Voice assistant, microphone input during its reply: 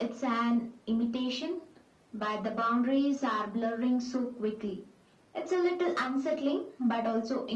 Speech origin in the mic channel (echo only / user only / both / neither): echo only